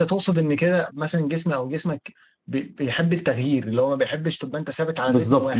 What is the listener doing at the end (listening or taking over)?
taking over